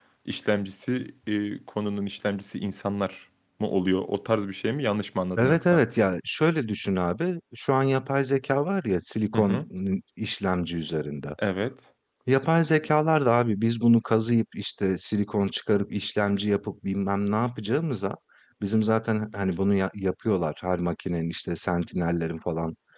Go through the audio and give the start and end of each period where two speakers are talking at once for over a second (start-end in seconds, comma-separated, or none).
none